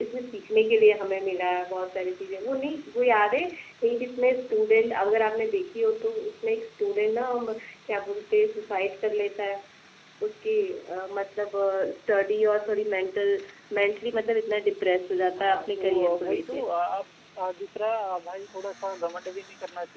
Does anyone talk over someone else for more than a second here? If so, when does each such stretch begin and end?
15.4-16.7

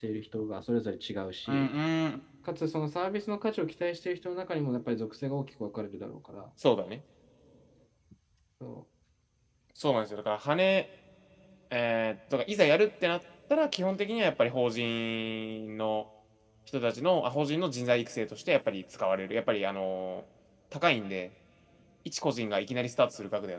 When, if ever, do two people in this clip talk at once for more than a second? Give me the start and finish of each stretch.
none

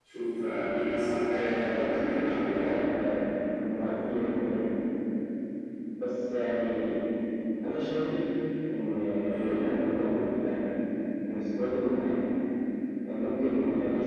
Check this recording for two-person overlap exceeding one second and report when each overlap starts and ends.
1.3-2.7

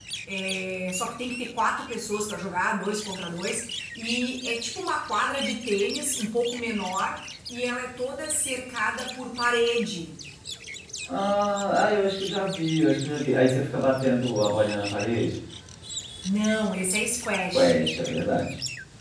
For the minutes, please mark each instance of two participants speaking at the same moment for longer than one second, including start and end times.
none

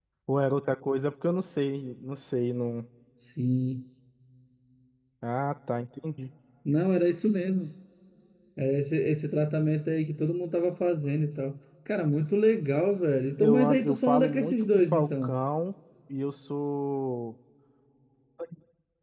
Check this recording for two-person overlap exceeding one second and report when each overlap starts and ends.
13.4-15.4

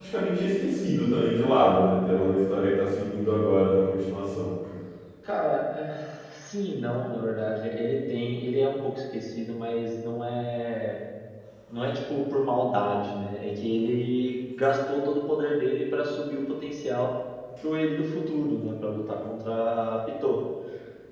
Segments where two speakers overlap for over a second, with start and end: none

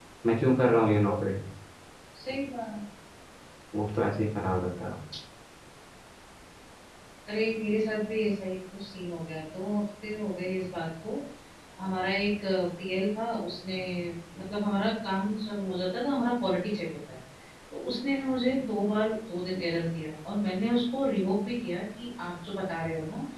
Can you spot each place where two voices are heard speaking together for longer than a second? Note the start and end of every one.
none

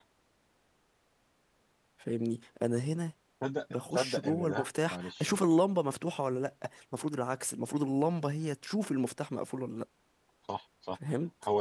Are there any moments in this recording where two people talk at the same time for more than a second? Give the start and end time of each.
3.7-5.3

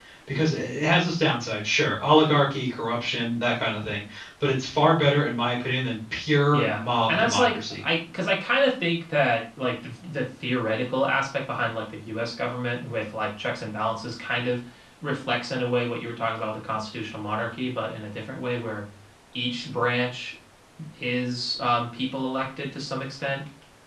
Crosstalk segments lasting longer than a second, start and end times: 6.5-7.8

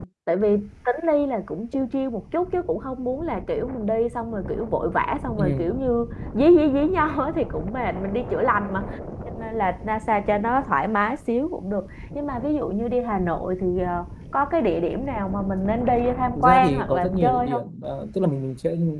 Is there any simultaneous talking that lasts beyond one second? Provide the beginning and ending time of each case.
16.4-17.6

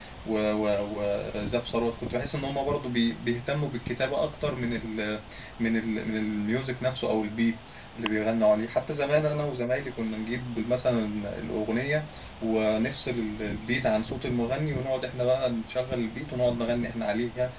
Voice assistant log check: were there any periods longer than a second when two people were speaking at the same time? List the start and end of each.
none

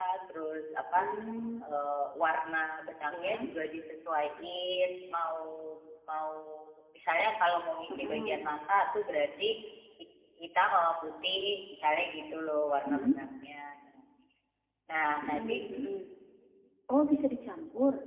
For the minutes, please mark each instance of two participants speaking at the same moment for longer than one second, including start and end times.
none

